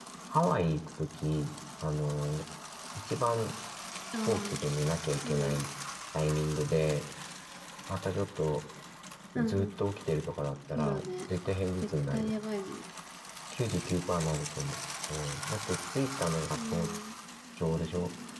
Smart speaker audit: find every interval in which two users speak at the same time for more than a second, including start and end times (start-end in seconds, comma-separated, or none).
none